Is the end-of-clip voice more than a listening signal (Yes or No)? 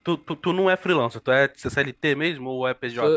Yes